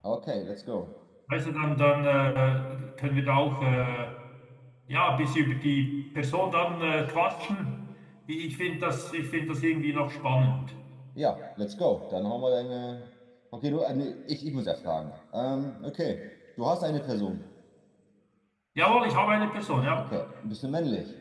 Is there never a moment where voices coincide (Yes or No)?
Yes